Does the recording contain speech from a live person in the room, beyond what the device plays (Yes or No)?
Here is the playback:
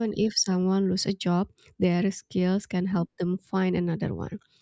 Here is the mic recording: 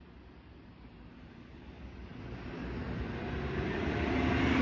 No